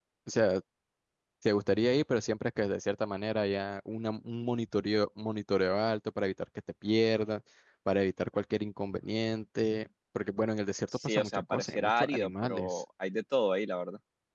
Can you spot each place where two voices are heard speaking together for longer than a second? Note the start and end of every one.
10.9-12.8

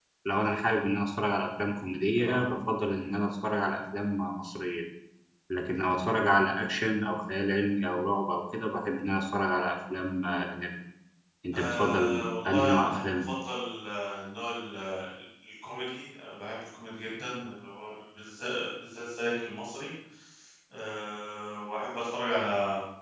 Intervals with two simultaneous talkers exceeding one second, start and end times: 11.5-13.3

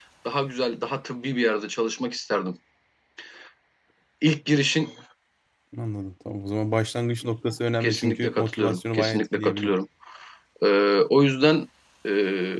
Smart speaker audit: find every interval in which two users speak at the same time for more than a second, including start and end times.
7.8-9.7

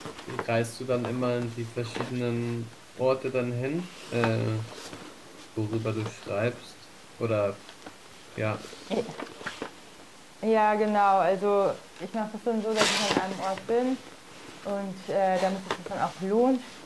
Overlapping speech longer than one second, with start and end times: none

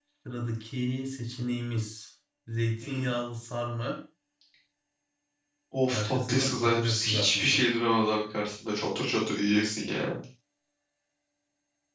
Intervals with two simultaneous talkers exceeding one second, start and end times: 5.9-7.6

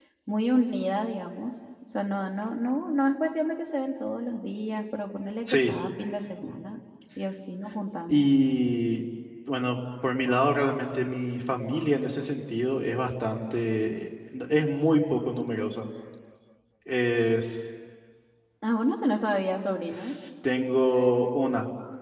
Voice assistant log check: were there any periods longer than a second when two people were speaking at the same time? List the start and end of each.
none

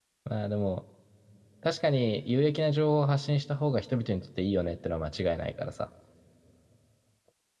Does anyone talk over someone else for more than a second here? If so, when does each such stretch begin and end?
none

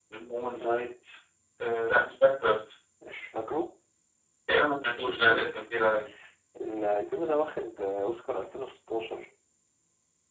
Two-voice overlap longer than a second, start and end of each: none

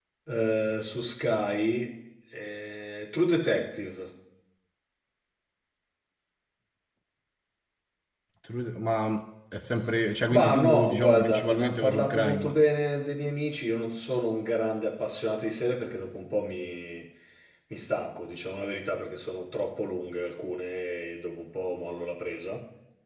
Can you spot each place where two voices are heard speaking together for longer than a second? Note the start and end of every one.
10.3-12.5

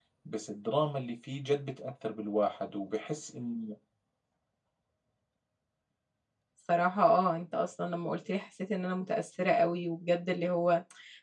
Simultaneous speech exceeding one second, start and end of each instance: none

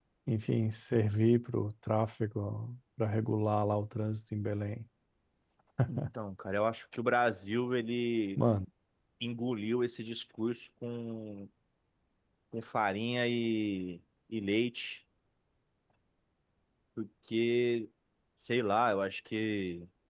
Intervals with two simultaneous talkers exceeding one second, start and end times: none

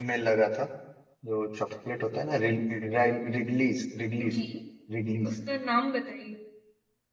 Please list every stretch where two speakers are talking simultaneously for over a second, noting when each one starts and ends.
none

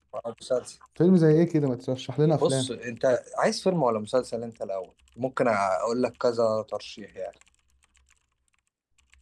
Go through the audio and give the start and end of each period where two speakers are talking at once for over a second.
none

